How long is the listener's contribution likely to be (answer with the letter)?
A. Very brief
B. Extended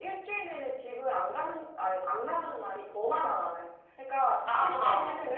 A